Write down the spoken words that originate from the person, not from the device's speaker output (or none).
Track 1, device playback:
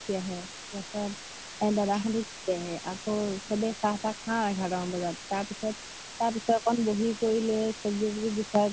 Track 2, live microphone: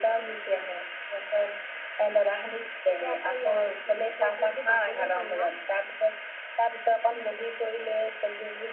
তাতে আকৌ ইয়াৰ কি বুলি কয় যোনটো বাকলি হয় ন